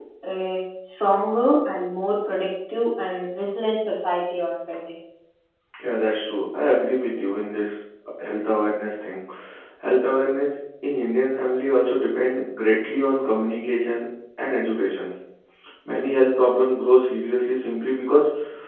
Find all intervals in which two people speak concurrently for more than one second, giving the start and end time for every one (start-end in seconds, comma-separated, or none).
none